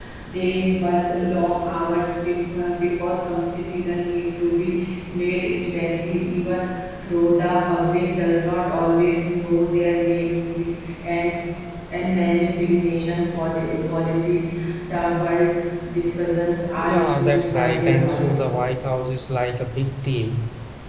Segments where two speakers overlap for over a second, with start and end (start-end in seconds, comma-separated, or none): 16.8-18.4